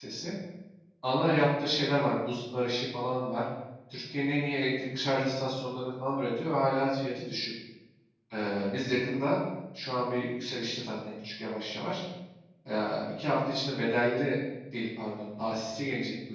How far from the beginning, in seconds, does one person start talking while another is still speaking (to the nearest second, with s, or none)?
none